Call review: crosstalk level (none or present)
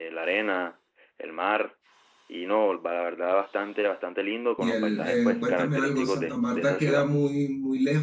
present